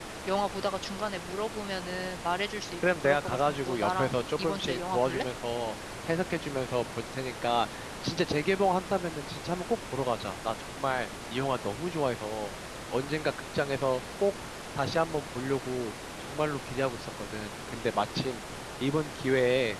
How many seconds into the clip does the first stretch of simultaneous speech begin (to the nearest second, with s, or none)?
3 s